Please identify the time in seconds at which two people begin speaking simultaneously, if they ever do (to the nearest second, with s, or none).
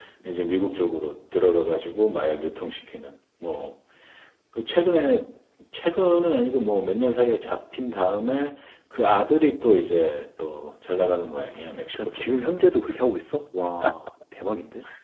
11 s